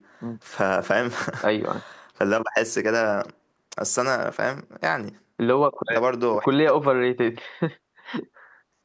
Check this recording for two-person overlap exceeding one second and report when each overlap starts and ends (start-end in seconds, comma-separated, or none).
none